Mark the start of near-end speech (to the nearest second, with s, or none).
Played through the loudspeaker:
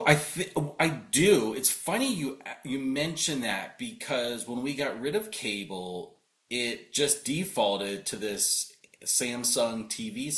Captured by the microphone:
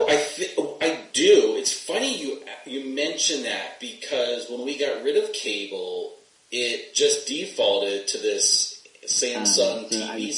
9 s